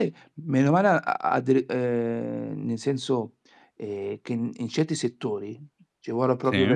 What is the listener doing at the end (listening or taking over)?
listening